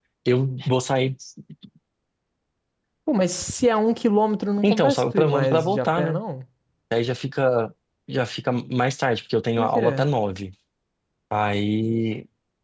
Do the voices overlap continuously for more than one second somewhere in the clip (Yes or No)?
Yes